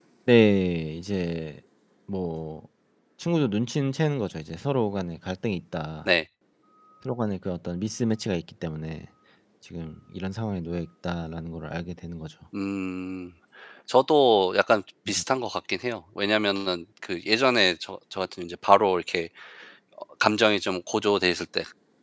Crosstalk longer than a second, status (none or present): none